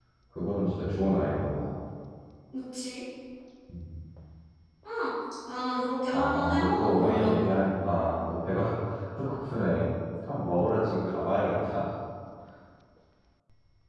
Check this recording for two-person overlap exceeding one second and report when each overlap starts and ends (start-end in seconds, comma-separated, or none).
6.1-7.5